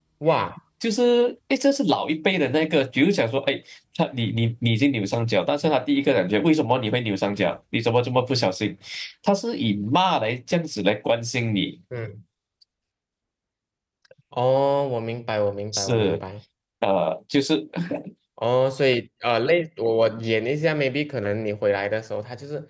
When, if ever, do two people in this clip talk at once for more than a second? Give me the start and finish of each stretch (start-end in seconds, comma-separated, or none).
none